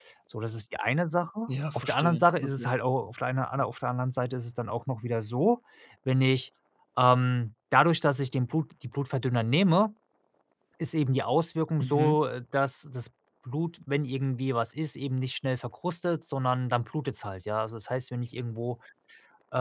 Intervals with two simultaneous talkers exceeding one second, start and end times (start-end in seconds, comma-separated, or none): 1.5-2.7